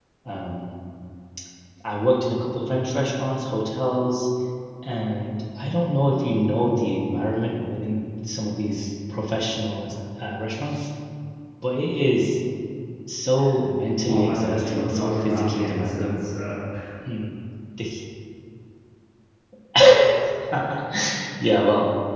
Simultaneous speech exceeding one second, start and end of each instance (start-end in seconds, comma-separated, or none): 14.1-16.1